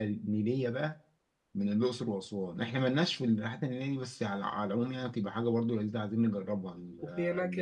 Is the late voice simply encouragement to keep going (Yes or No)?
No